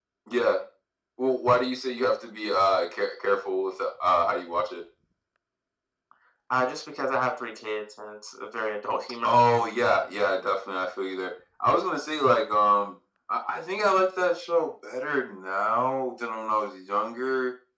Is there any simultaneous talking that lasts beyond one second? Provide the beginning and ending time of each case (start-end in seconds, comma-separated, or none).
none